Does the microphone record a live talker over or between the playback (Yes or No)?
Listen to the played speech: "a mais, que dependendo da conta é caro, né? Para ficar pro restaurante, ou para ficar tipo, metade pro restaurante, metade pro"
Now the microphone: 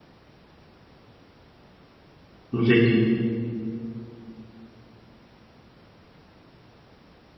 Yes